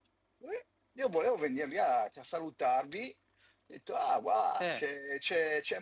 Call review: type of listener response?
listening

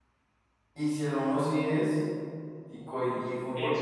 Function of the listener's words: taking over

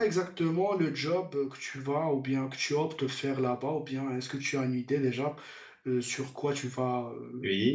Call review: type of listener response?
taking over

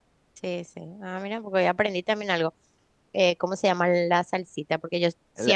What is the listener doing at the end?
listening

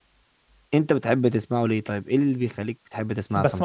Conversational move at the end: taking over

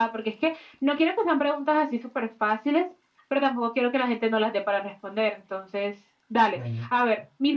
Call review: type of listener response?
listening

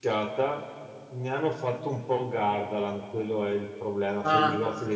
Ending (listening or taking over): listening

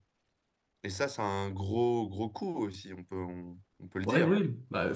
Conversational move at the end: taking over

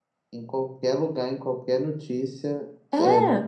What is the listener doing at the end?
listening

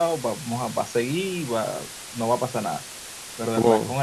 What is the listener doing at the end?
listening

